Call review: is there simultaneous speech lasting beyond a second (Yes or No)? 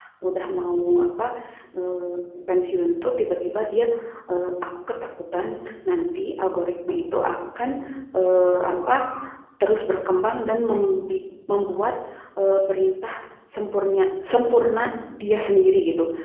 No